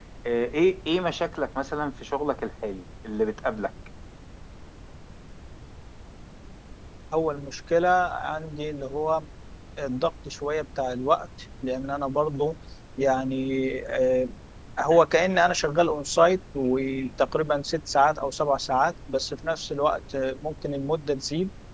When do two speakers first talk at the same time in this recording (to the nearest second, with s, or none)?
none